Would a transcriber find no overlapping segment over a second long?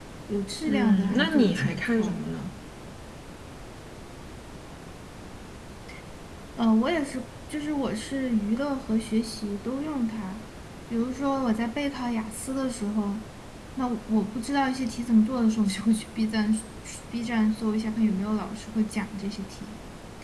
No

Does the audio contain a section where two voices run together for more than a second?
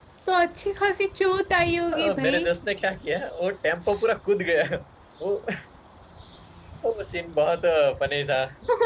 No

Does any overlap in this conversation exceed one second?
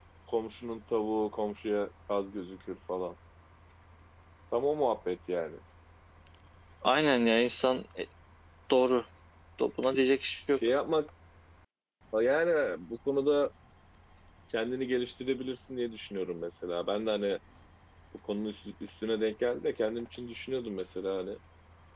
No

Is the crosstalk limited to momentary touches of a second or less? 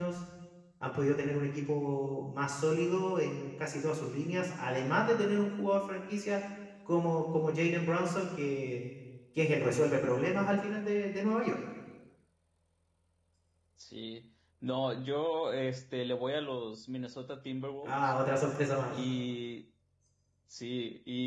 Yes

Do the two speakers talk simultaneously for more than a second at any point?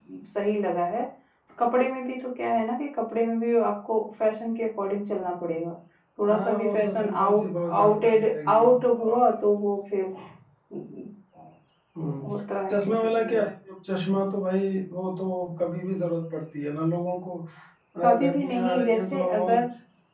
Yes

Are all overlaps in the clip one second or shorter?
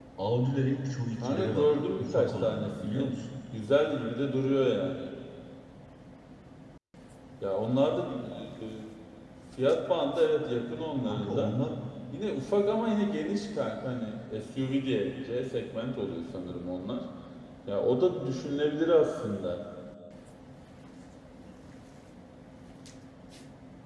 No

